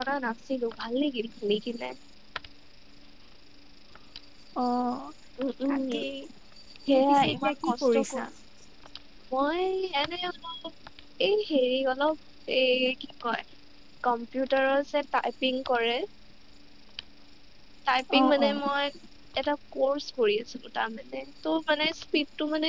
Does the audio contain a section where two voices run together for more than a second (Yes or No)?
Yes